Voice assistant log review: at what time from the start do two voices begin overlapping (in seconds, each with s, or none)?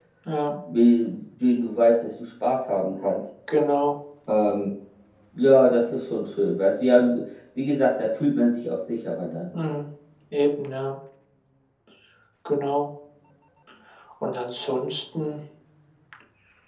none